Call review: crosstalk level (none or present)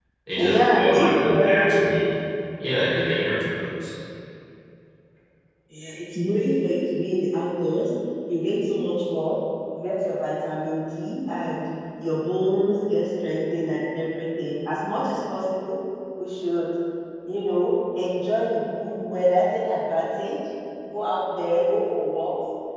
present